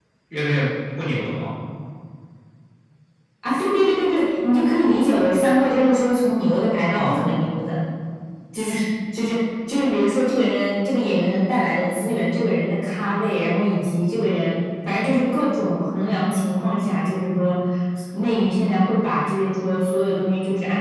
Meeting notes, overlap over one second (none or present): none